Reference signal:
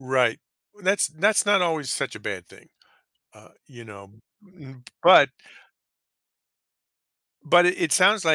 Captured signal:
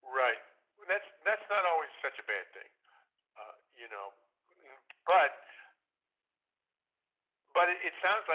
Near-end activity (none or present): none